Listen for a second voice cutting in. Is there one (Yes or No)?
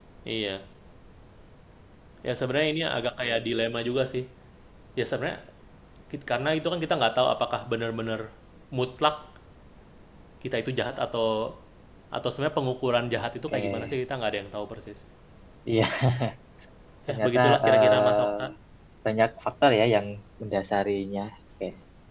Yes